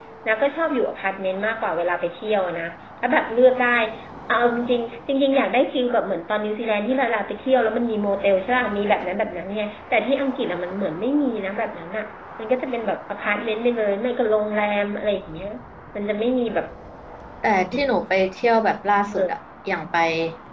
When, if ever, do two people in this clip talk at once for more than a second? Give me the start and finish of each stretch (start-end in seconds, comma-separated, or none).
none